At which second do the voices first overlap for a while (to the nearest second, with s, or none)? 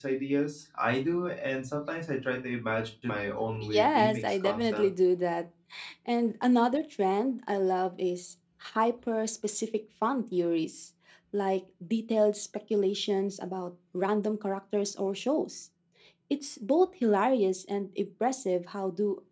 3 s